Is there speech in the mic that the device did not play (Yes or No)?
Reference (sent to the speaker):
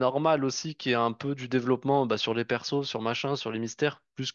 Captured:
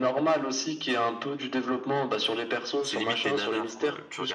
Yes